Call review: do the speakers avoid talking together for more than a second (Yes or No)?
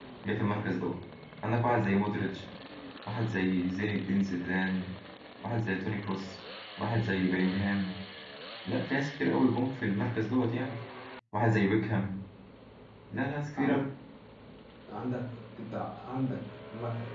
Yes